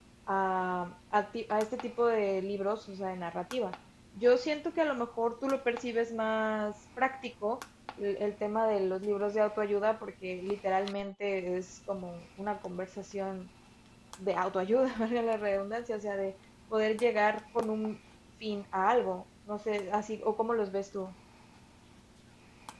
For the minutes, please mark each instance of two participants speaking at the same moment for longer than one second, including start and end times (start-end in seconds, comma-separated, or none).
none